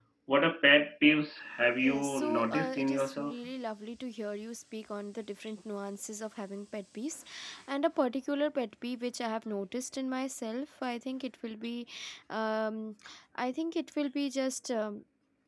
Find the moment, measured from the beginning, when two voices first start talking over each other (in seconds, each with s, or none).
1.8 s